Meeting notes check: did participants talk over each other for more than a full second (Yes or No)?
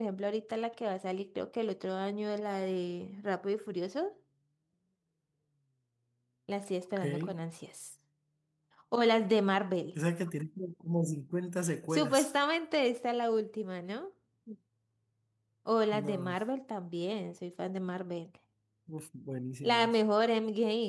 No